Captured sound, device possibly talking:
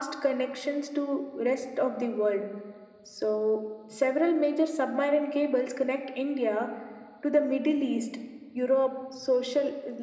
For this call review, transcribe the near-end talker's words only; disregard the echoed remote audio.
none

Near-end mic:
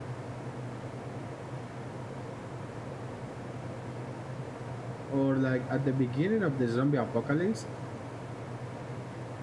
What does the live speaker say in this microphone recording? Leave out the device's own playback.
or like at the beginning of the zombie apocalypse,

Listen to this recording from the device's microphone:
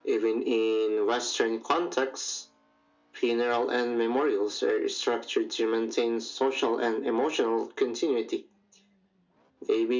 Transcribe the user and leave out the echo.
none

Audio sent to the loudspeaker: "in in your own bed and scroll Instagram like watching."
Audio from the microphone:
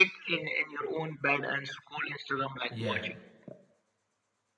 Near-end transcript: Yeah,

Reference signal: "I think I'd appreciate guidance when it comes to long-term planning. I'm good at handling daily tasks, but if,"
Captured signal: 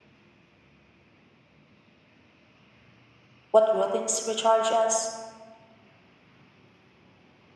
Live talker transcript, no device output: what routines recharge us.

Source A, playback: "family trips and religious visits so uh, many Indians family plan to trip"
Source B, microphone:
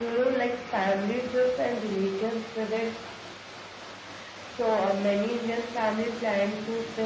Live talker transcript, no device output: none

